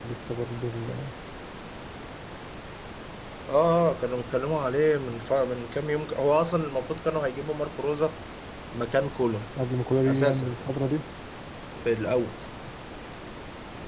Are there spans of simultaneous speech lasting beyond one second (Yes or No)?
No